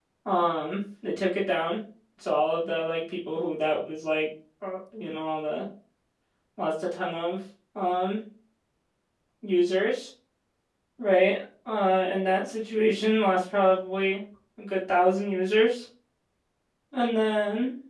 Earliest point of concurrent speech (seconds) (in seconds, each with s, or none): none